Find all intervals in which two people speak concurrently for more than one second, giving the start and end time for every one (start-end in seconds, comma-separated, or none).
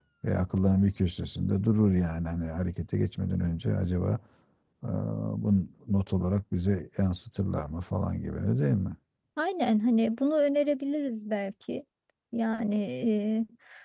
none